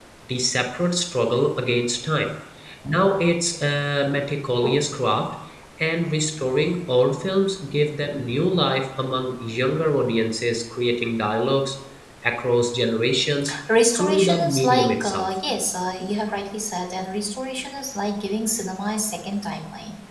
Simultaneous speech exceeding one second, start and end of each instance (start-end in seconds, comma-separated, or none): 13.9-15.3